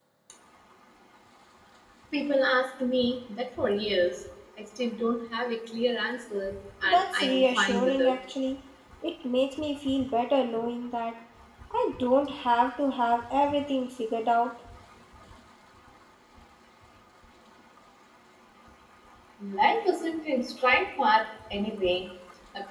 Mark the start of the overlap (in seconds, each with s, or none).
6.8 s